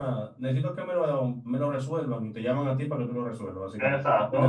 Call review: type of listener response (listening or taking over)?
taking over